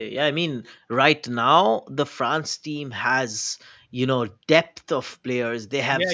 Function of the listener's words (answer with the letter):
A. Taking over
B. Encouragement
B